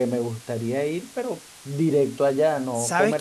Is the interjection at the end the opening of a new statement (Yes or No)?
Yes